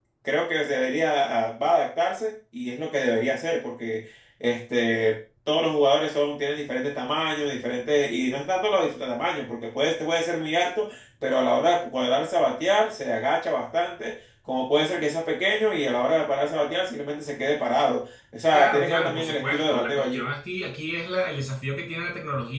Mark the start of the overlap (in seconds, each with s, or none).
18.5 s